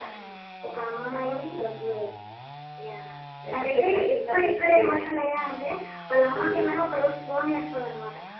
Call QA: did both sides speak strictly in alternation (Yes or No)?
No